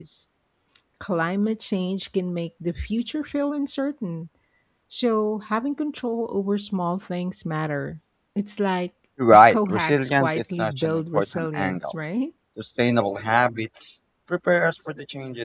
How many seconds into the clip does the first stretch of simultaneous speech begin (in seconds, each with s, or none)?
9.2 s